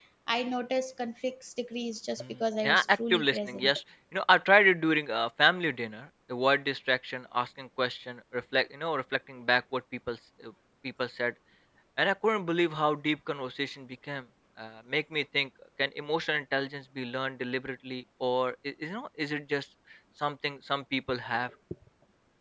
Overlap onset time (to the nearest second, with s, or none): 2 s